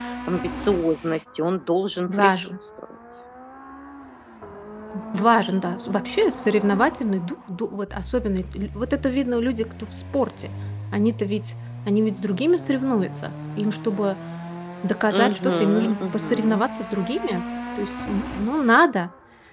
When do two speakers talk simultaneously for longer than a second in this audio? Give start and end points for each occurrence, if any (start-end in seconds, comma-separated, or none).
15.1-16.6